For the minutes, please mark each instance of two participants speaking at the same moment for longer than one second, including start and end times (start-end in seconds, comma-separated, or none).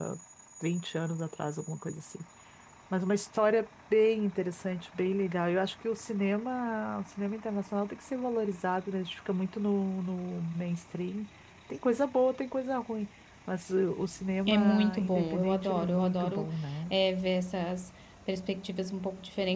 14.4-16.5